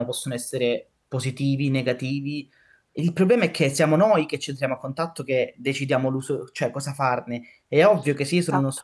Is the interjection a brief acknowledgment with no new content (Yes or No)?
Yes